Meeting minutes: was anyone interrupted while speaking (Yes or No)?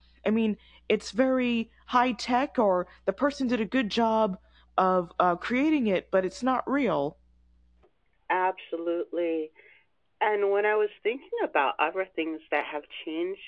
No